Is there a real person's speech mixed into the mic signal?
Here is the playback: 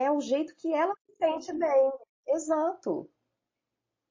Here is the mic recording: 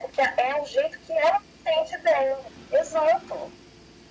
No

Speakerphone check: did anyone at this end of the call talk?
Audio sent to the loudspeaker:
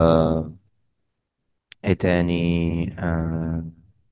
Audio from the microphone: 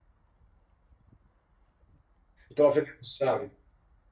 Yes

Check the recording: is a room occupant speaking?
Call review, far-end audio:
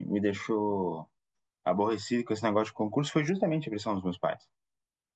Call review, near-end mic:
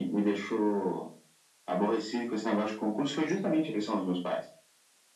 No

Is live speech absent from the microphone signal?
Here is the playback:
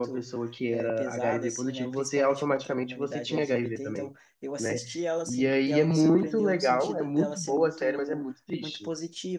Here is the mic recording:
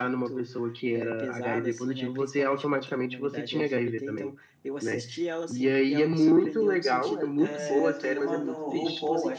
No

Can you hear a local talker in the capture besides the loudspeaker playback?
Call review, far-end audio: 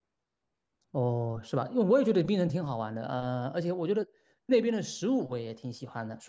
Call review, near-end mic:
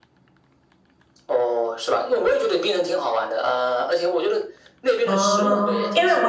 Yes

